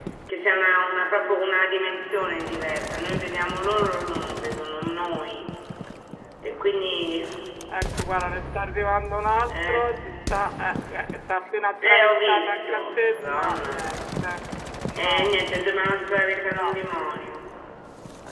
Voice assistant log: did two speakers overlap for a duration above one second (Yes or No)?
Yes